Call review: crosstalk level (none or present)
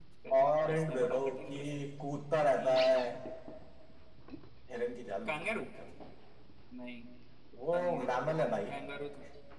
present